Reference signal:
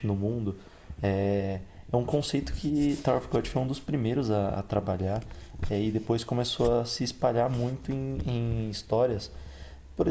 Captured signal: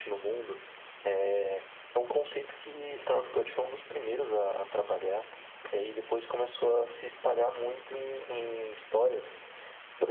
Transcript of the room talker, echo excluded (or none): none